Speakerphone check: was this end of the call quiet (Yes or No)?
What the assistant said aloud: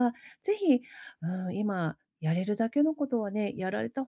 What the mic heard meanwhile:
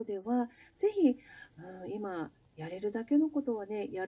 Yes